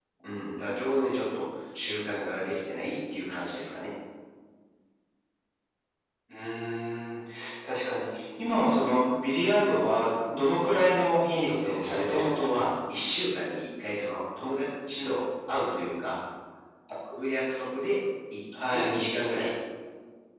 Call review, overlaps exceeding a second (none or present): present